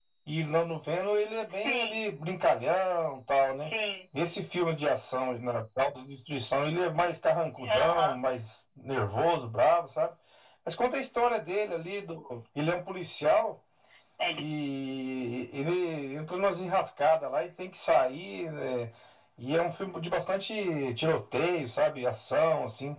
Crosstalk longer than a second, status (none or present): none